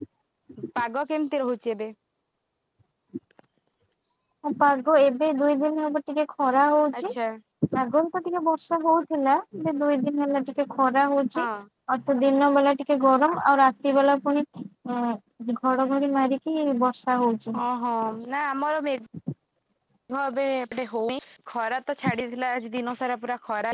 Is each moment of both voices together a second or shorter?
Yes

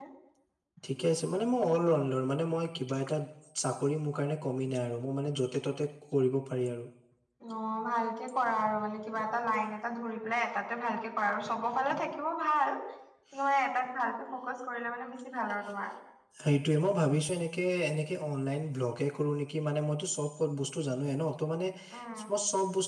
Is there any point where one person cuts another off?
No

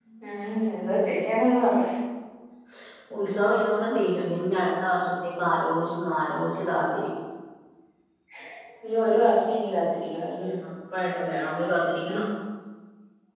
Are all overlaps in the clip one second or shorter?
Yes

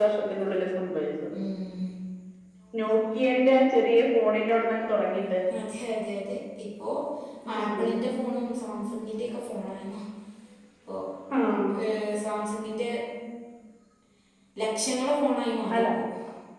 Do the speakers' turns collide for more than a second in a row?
No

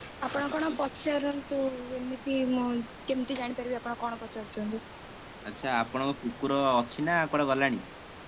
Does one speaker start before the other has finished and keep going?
No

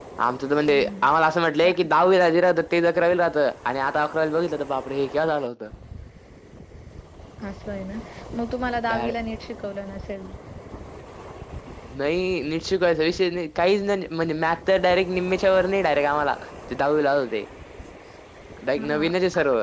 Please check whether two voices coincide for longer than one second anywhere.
No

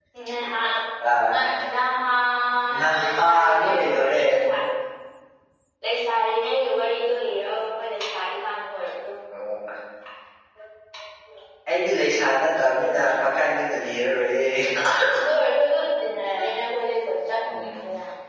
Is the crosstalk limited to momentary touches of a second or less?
No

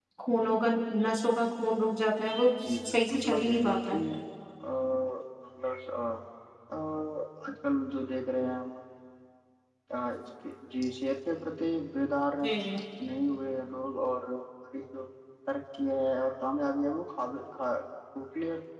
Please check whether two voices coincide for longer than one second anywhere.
Yes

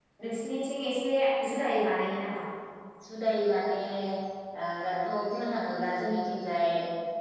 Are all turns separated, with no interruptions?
Yes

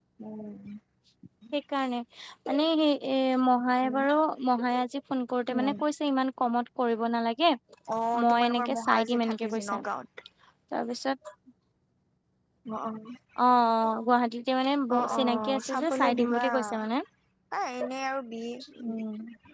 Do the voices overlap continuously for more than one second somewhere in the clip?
Yes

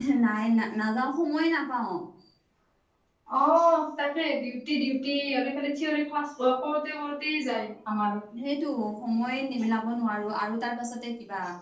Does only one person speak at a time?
Yes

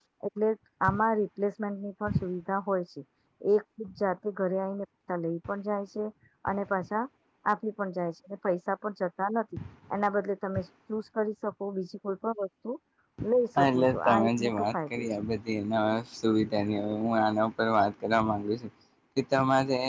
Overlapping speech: Yes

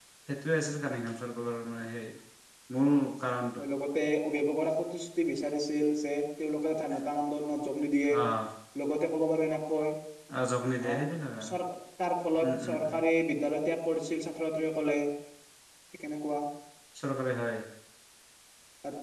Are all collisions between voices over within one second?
Yes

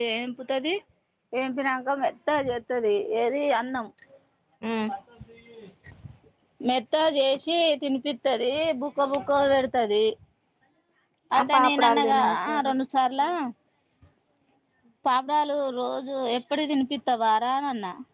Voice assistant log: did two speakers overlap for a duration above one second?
Yes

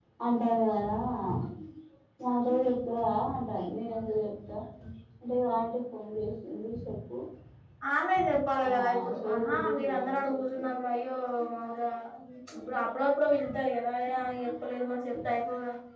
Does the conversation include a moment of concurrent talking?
Yes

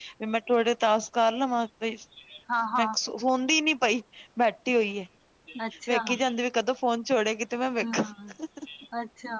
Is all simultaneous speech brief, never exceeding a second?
Yes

